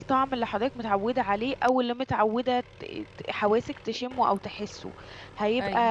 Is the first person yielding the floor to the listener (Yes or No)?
No